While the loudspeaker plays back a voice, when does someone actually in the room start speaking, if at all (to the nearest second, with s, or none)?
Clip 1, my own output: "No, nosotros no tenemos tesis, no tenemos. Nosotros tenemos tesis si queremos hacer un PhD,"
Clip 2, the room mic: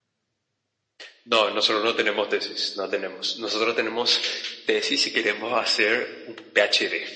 none